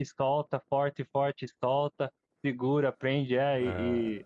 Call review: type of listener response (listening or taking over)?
listening